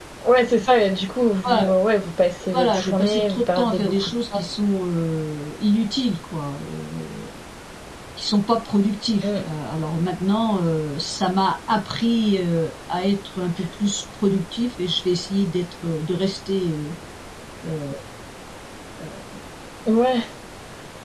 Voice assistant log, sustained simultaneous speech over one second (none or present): present